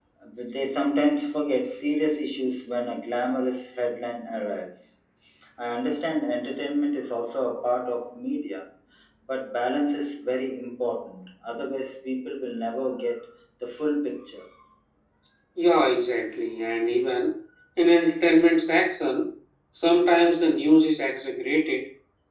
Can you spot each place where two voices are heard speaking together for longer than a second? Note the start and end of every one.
none

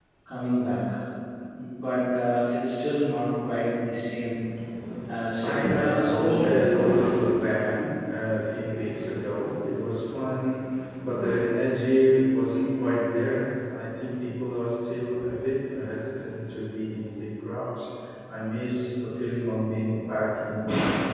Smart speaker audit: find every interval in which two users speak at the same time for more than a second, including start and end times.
5.4-6.7

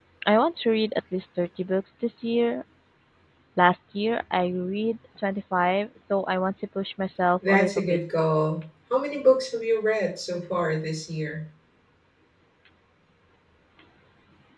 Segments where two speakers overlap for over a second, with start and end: none

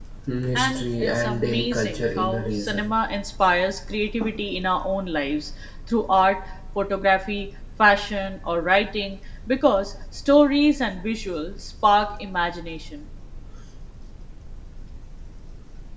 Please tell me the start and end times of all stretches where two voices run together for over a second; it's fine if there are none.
0.6-2.9

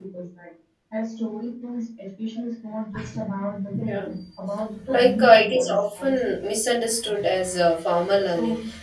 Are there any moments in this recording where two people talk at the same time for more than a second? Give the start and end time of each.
4.9-6.2

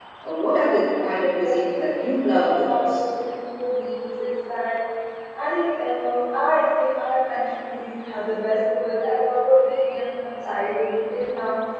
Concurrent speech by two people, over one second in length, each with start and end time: 1.0-3.0

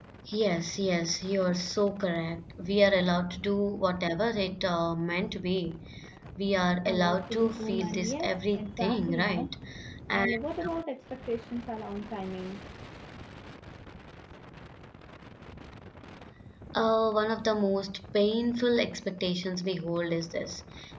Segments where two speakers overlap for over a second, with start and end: 6.9-9.5

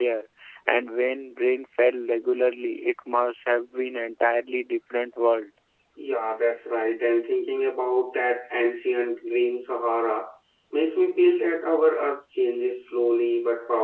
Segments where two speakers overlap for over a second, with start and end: none

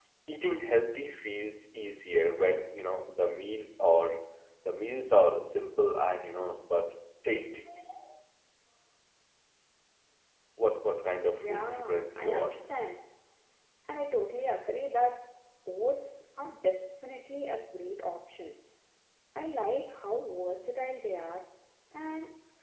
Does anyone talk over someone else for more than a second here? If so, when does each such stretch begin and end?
11.4-12.6

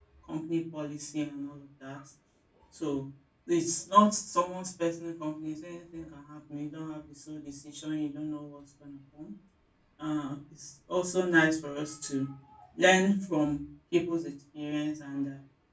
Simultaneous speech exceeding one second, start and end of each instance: none

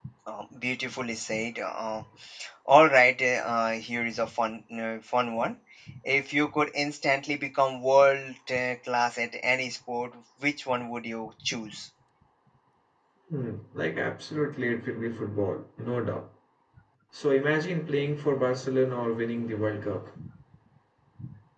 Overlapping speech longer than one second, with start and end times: none

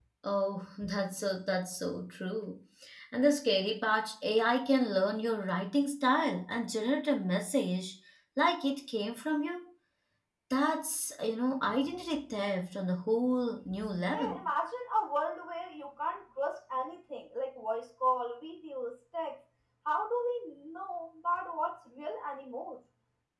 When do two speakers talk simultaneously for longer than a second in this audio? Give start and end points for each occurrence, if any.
none

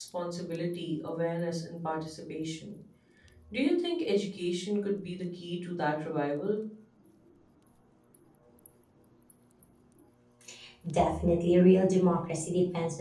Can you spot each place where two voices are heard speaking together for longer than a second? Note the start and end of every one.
none

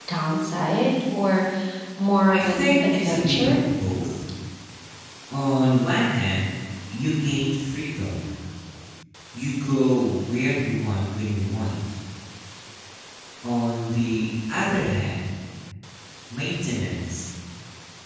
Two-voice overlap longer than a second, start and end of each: 2.3-3.6

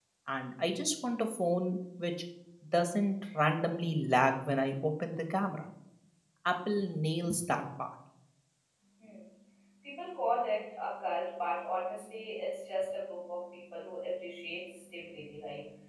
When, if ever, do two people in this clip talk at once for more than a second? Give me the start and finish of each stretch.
none

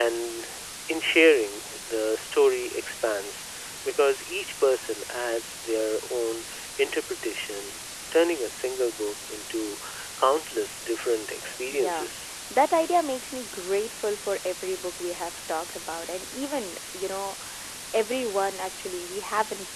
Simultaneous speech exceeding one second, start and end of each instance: none

